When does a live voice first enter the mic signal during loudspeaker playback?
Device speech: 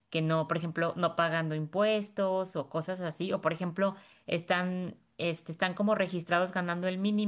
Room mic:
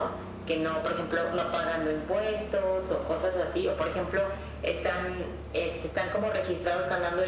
none

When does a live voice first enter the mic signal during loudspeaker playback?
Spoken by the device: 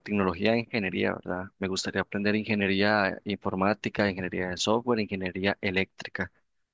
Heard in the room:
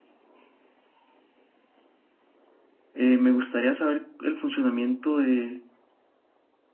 3 s

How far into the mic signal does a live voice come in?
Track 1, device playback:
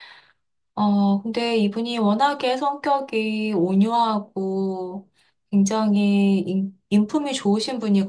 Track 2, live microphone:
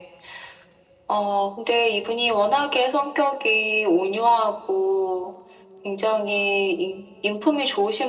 none

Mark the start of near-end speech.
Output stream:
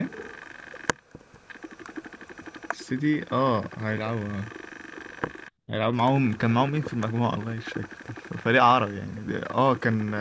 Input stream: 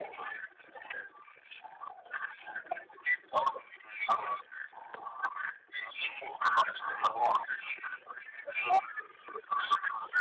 none

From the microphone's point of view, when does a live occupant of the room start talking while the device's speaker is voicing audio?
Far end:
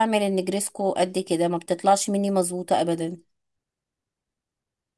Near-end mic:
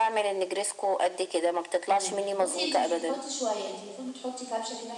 2 s

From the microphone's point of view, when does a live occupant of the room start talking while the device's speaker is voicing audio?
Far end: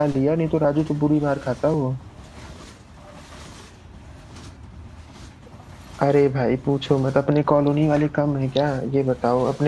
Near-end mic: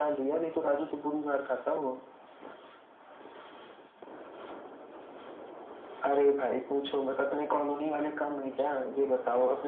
none

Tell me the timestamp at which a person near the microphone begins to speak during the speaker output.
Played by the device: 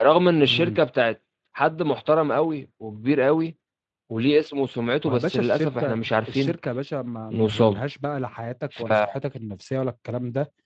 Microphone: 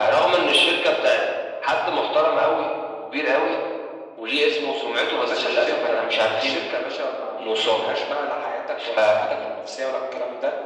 none

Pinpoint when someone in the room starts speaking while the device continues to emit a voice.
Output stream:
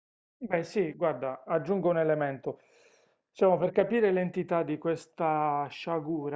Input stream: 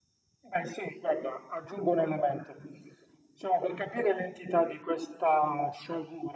none

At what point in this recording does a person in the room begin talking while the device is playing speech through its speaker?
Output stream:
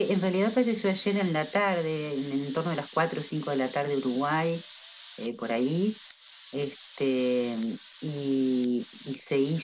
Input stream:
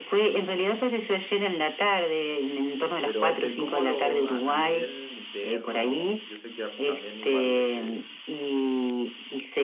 3 s

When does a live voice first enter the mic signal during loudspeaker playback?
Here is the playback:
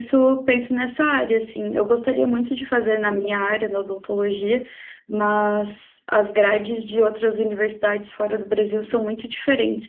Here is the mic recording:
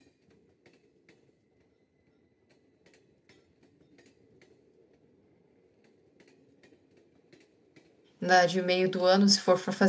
8 s

